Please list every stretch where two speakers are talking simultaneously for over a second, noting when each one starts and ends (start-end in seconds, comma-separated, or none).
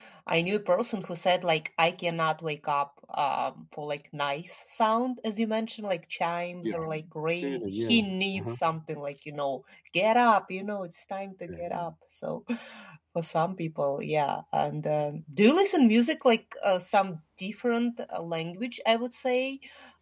7.3-8.6